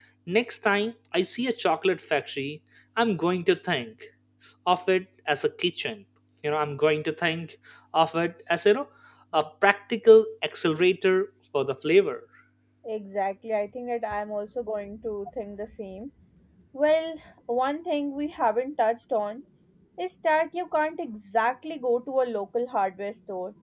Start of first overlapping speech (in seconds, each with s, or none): none